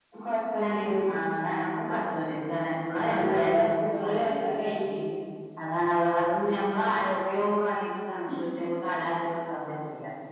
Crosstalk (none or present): present